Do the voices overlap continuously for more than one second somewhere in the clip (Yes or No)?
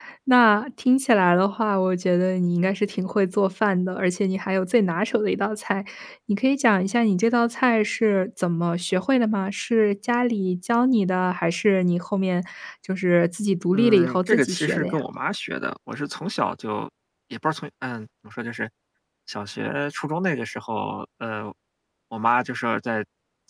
Yes